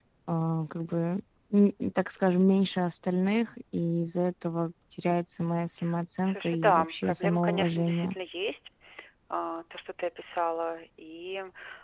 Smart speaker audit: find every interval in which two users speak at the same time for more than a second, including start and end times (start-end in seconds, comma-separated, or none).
6.2-8.1